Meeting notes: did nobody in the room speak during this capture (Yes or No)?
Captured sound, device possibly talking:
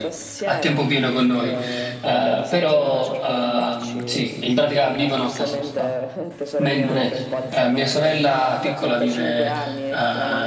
No